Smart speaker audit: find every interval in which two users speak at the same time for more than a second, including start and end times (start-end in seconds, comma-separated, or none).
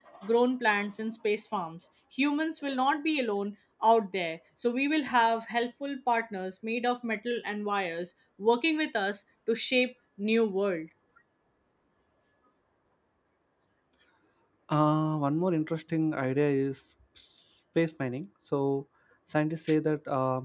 none